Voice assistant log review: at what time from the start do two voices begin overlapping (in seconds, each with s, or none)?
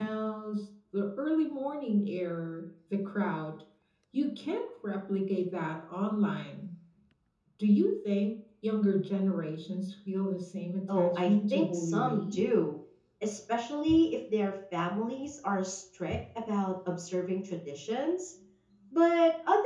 10.9 s